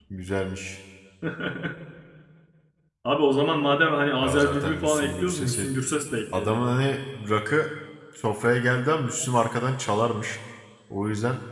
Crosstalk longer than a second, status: present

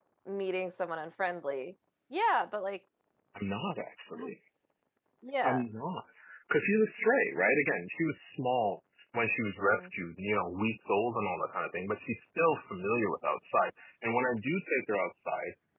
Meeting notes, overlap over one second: none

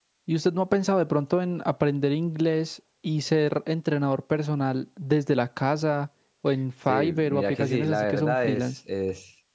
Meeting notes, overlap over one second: present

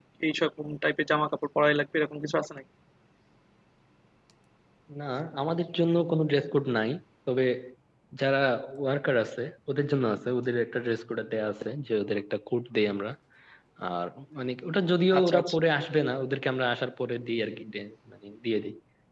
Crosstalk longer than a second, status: none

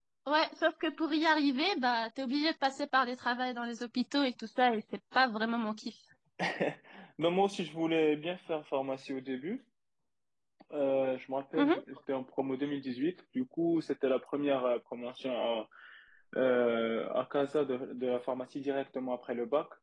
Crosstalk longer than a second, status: none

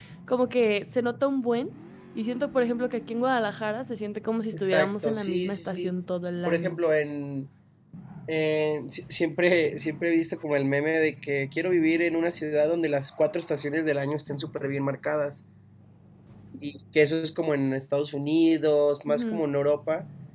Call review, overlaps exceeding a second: present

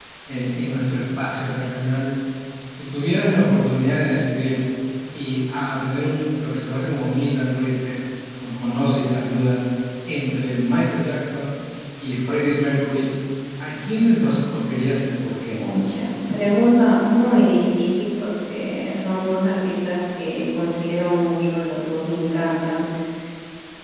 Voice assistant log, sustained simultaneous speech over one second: none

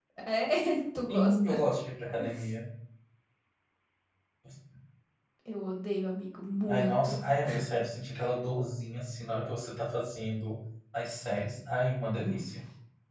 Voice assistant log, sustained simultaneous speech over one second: none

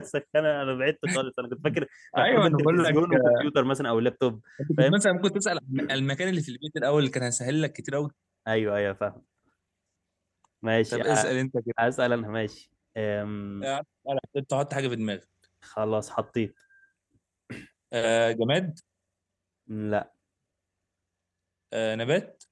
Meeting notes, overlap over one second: present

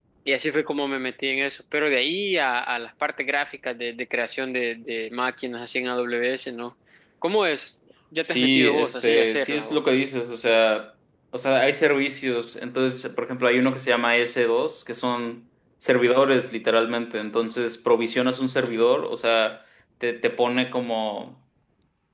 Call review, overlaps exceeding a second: present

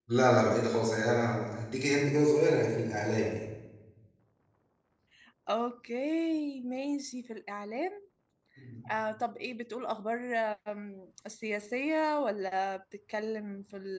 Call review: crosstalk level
none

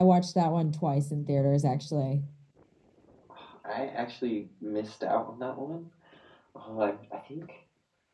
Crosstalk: none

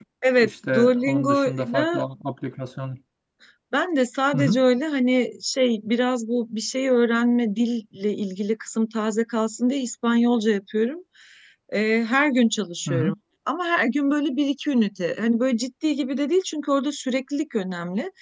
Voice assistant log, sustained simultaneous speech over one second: present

